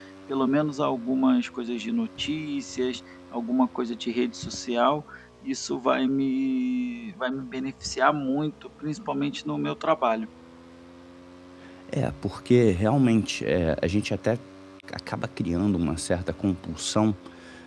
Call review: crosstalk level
none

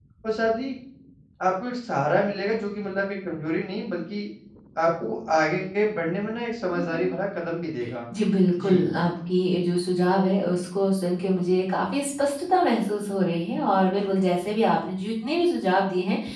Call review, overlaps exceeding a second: none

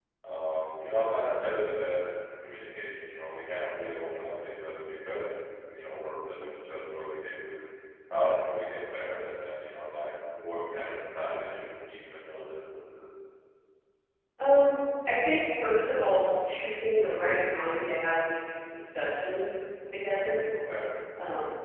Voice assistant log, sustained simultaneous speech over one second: none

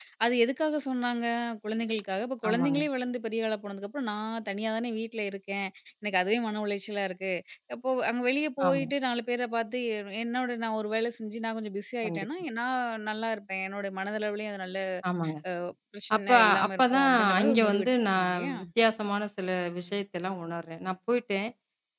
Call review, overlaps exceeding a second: present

